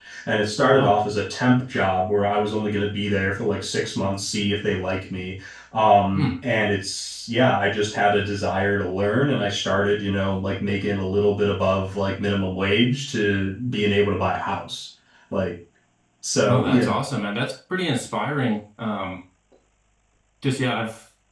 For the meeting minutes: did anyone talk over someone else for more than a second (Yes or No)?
No